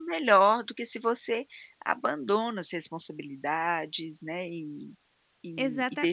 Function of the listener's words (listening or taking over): taking over